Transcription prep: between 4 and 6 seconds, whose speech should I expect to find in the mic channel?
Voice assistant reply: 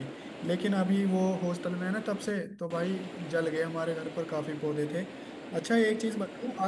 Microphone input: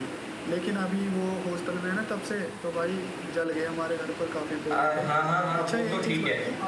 both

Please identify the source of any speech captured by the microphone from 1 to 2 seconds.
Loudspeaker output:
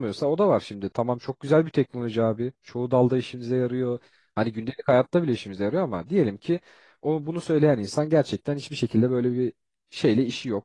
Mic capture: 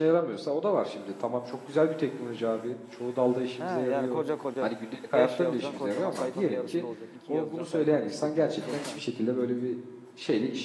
echo only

